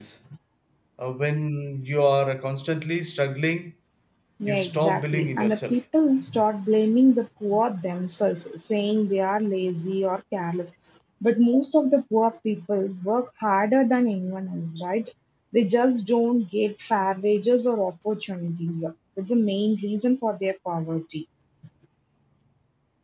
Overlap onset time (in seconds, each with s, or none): 4.5 s